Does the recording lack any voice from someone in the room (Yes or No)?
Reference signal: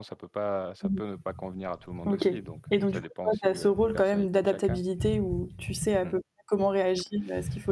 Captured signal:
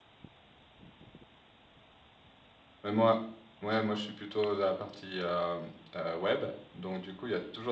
No